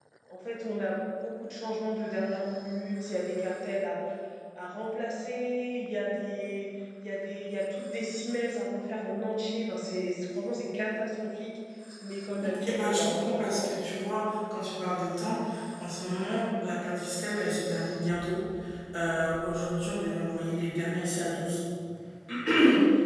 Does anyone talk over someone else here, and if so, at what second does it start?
12.4 s

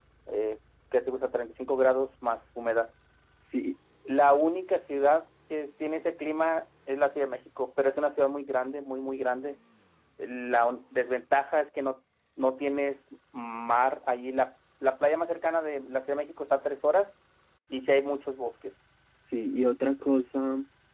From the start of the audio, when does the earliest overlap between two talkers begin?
none

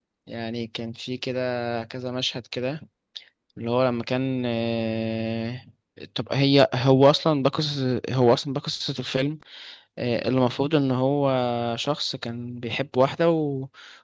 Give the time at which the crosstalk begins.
none

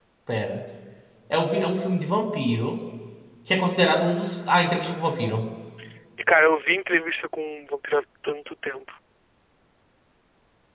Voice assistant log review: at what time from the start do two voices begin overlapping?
none

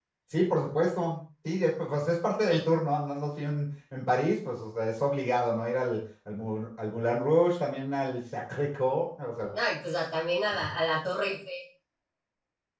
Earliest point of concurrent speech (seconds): none

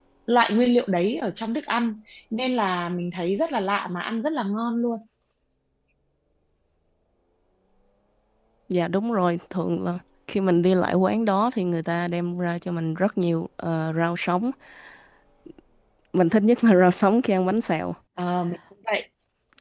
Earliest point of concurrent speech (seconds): none

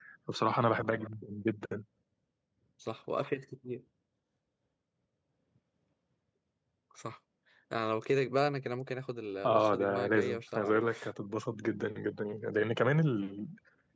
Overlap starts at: 9.4 s

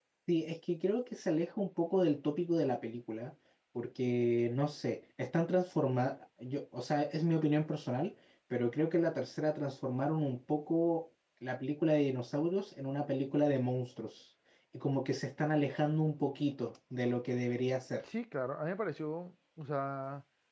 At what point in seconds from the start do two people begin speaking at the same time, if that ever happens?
none

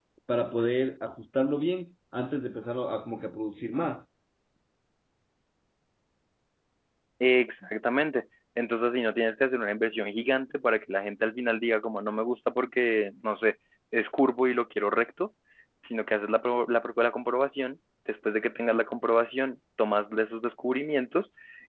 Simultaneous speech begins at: none

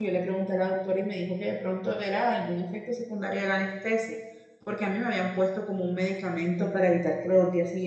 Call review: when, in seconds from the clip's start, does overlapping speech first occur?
none

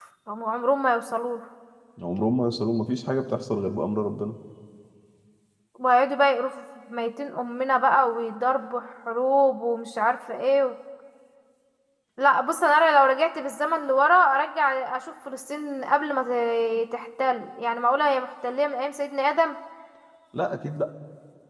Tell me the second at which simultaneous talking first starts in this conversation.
none

